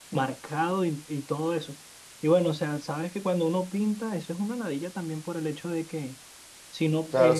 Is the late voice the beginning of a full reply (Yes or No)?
Yes